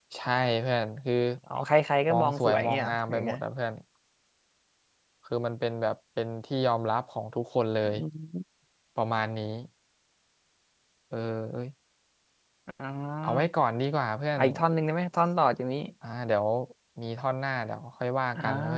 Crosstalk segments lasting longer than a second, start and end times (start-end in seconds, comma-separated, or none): 2.1-3.3